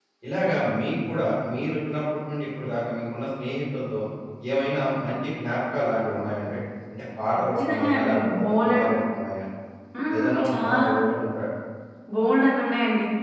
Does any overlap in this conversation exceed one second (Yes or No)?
Yes